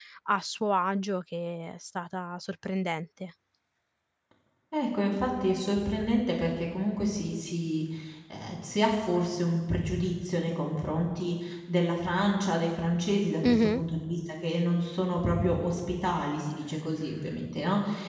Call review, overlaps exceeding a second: none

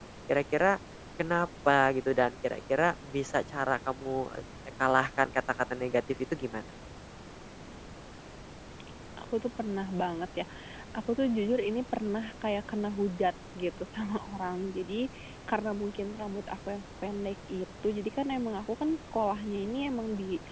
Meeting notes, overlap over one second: none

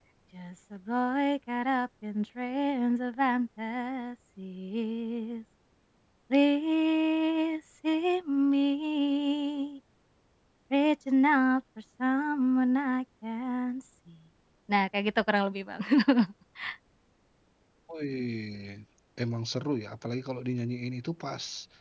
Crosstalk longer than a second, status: none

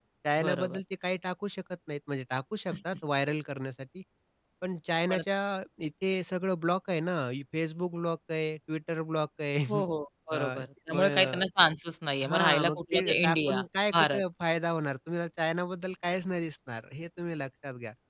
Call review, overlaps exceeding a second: present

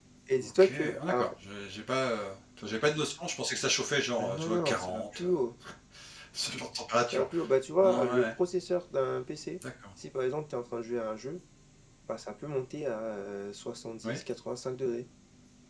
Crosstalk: present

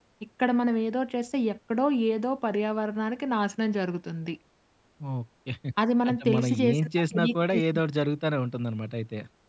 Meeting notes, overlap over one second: present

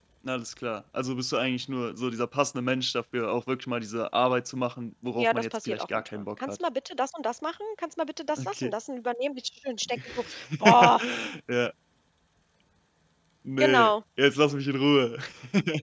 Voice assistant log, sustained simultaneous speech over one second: present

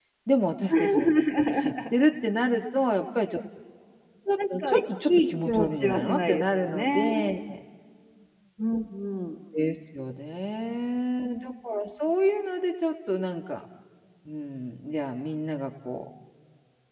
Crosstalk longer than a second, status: present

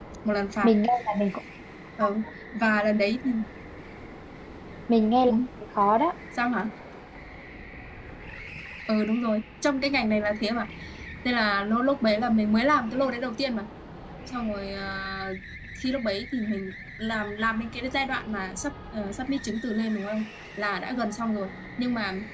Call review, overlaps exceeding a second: none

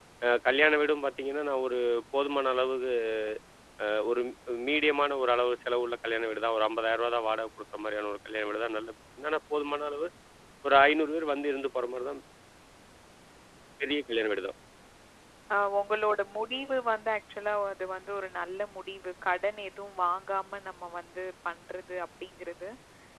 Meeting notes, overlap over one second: none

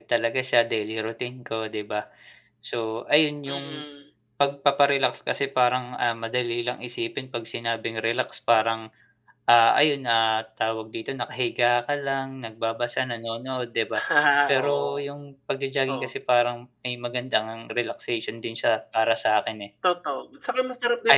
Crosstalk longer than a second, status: none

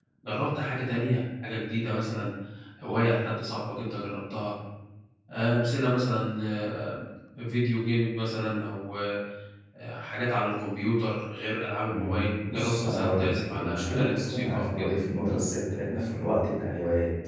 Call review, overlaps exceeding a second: present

